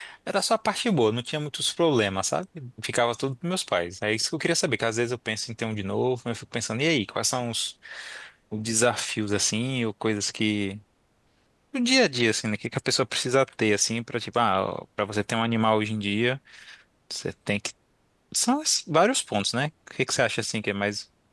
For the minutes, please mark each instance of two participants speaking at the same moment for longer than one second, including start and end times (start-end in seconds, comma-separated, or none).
none